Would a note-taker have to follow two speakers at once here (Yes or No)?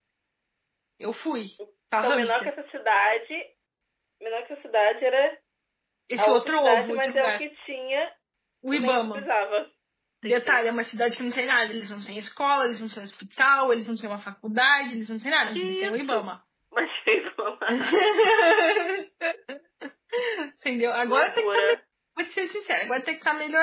Yes